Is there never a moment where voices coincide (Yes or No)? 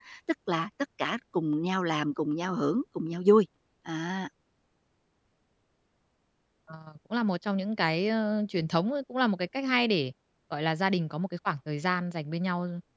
Yes